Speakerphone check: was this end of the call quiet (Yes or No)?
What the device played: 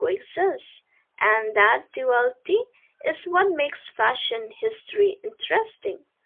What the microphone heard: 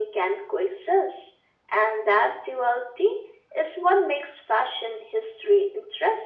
Yes